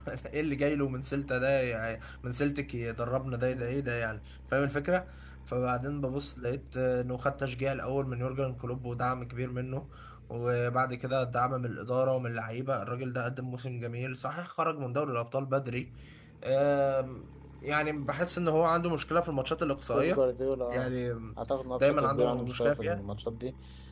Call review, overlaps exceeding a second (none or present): present